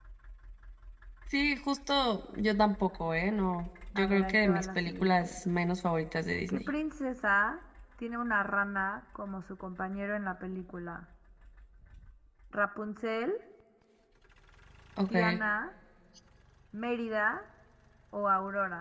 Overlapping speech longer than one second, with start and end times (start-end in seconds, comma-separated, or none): 4.0-5.4